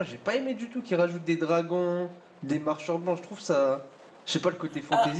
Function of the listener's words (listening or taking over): taking over